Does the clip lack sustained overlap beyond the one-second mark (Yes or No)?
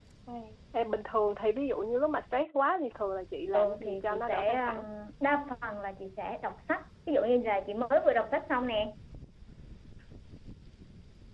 No